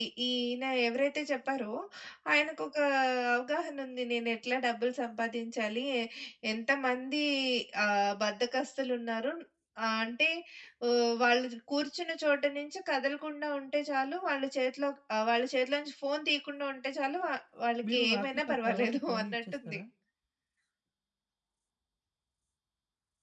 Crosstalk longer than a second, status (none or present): present